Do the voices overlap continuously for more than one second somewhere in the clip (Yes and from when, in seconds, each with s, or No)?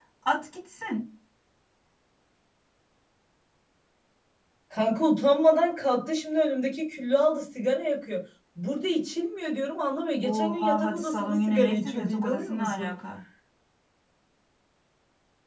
Yes, from 10.2 s